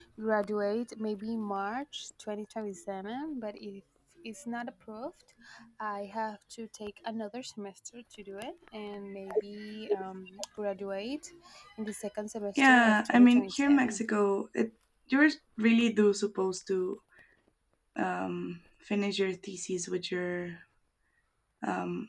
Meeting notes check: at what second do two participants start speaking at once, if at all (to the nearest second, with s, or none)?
13 s